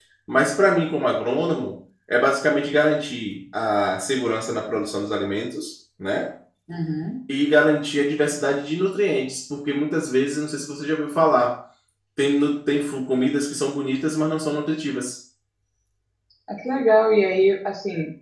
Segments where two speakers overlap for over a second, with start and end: none

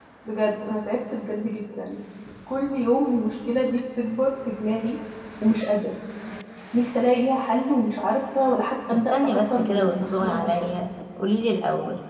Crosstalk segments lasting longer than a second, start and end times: 8.9-10.7

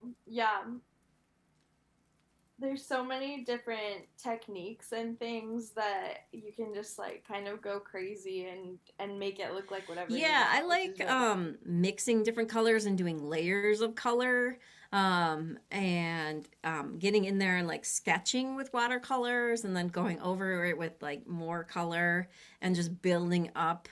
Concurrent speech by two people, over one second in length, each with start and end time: 10.1-11.5

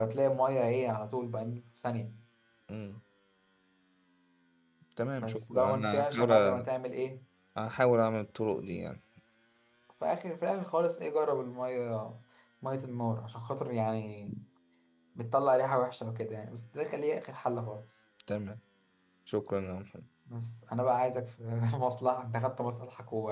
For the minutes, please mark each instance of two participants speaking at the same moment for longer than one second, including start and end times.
5.2-6.6

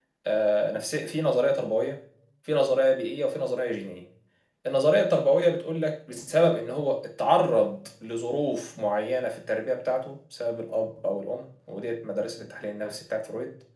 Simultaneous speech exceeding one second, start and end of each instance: none

